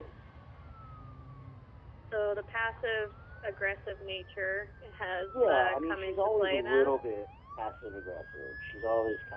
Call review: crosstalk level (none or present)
present